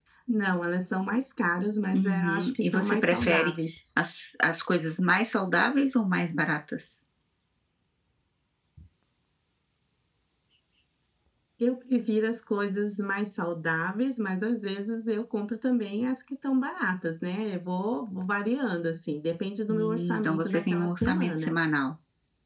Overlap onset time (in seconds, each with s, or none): 1.9 s